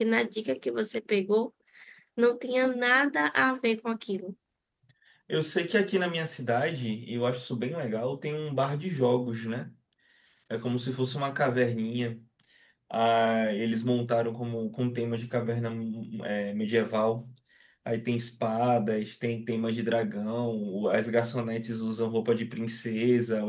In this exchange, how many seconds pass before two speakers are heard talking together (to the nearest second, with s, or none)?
none